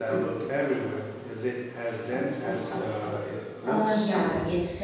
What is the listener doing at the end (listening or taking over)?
taking over